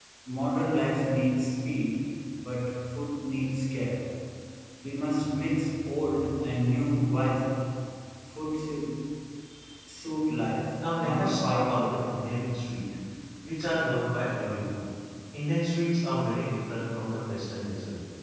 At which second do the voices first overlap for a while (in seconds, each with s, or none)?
10.8 s